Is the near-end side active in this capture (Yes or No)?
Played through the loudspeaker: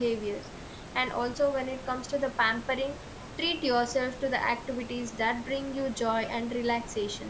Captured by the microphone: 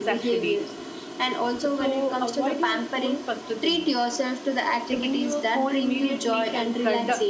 Yes